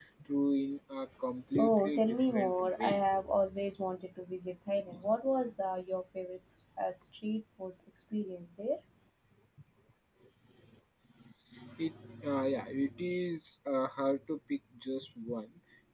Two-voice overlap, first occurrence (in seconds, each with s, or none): 1.6 s